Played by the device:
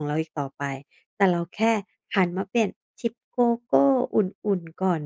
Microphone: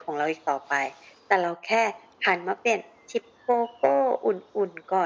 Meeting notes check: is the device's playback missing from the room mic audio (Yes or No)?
No